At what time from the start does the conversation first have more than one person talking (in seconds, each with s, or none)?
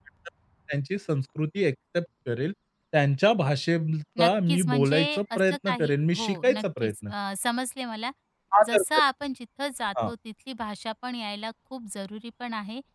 4.2 s